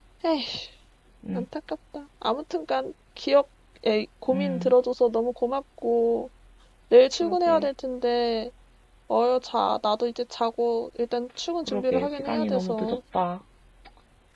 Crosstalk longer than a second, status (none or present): present